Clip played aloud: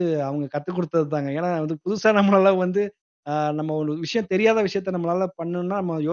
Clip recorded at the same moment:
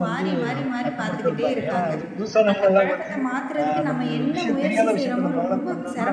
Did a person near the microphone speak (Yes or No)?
Yes